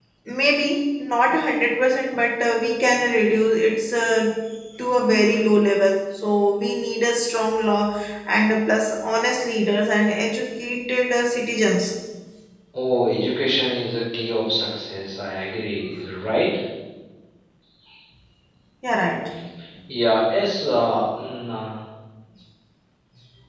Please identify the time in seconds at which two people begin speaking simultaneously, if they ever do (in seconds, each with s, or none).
none